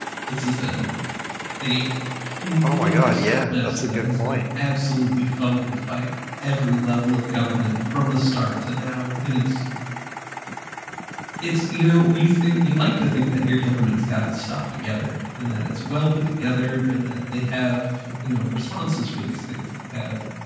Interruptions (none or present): present